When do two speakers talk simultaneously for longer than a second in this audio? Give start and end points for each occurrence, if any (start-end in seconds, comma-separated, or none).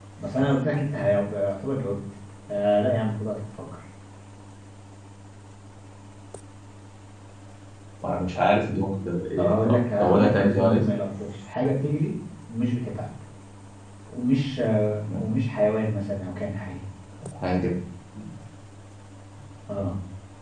9.4-10.8